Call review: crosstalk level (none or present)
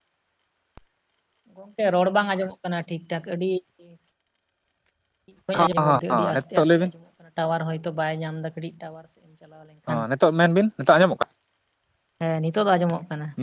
present